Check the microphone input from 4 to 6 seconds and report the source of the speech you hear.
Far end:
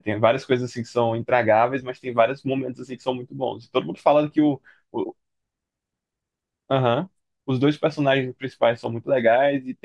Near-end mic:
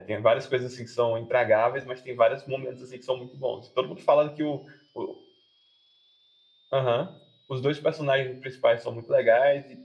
echo only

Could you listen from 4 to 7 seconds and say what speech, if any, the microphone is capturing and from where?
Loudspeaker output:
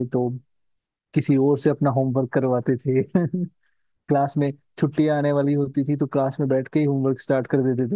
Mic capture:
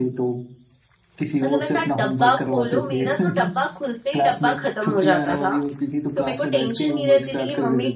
both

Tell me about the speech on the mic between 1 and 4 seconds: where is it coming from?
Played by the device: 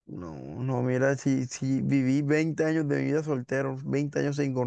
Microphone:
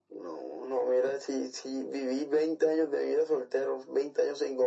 echo only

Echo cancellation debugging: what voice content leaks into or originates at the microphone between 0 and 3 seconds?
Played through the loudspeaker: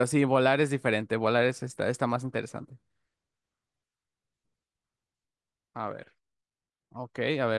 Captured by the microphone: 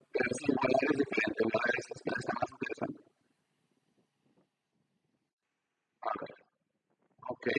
echo only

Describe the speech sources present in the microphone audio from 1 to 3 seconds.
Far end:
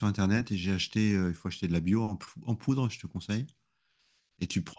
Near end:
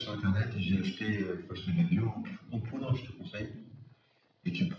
echo only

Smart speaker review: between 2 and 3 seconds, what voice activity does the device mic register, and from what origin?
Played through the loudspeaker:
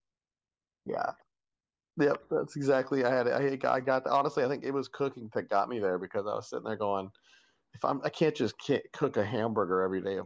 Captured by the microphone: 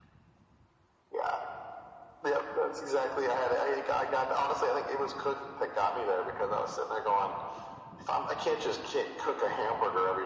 echo only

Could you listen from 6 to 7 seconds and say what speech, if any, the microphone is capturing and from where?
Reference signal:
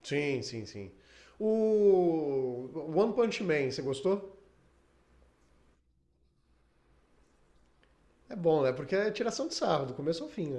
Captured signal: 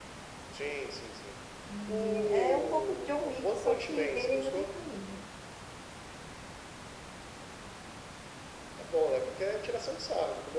neither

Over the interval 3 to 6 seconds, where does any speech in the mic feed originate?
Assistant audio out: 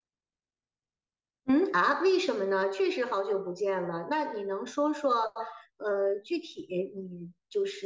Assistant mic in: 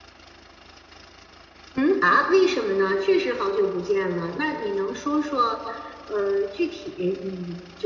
echo only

